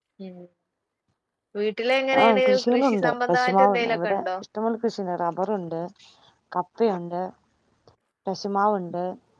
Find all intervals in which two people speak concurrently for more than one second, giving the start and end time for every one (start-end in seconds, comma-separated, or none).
2.2-4.3